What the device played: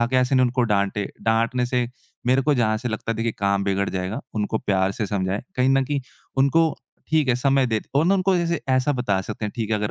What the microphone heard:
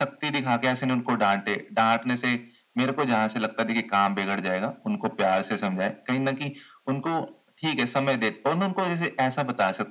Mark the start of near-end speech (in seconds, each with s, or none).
none